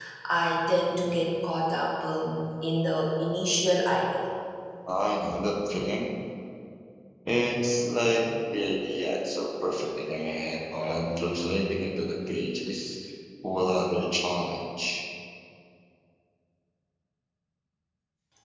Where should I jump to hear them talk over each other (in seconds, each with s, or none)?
none